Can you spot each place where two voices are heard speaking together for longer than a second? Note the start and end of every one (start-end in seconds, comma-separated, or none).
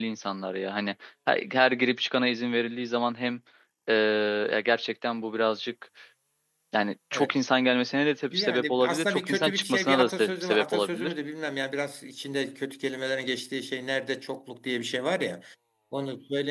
8.3-11.1